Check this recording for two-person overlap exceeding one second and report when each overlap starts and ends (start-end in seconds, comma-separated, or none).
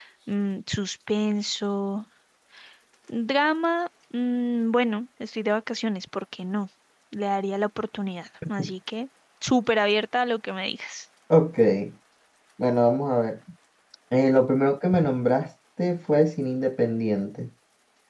none